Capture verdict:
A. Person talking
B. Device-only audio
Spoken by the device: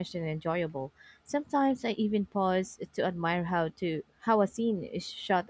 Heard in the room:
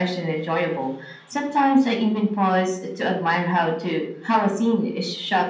B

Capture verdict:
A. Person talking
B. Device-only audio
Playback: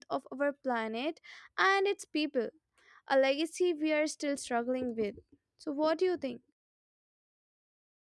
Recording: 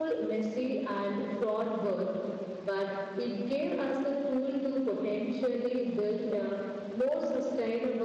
A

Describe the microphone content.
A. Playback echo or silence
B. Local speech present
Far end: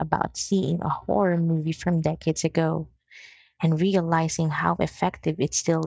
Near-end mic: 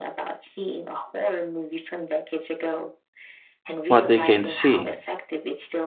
B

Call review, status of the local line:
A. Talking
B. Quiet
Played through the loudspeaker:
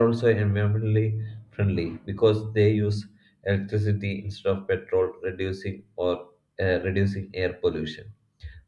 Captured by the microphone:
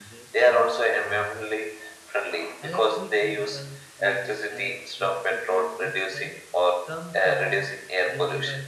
A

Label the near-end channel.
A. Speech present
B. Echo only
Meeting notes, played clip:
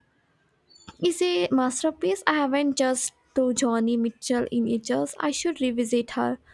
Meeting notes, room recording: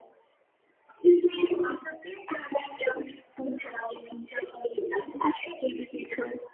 B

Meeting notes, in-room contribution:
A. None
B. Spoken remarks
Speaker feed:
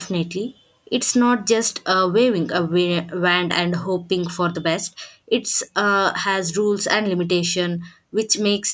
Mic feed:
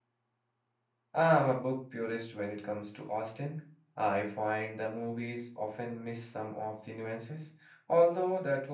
B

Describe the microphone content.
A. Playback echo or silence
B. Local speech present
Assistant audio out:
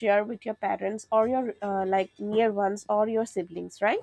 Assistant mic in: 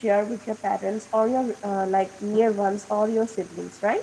A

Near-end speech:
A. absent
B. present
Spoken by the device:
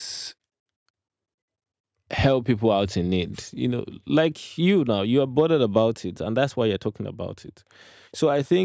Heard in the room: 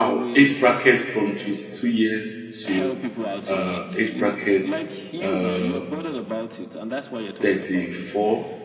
B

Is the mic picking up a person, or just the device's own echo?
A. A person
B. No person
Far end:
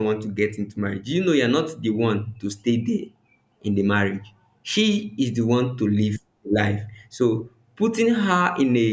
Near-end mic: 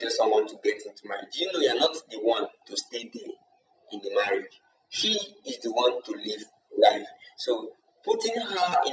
B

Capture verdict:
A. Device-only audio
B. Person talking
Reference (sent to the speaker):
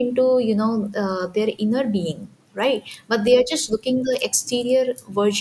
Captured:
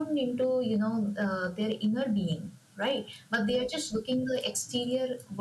A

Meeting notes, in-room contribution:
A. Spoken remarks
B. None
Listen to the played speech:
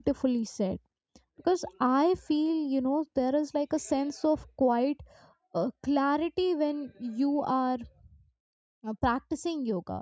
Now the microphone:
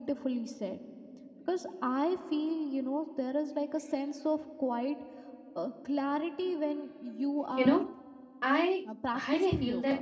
A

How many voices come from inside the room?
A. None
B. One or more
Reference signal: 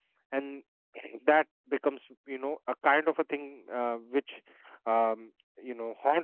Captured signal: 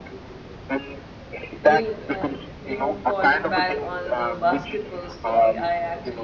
B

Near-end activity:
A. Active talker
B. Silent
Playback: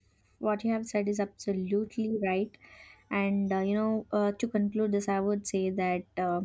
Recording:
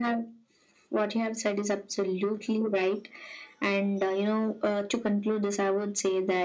B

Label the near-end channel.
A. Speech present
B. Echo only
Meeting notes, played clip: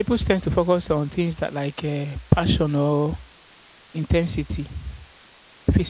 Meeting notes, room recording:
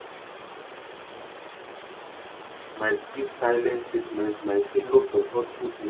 A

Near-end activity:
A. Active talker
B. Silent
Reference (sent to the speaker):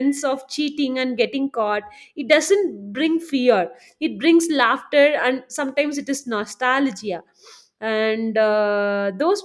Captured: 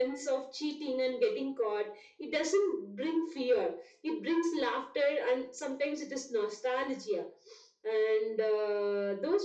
B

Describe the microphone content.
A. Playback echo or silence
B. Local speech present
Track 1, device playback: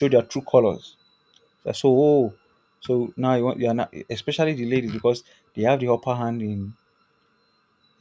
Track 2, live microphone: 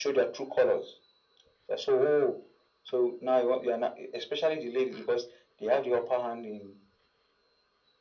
A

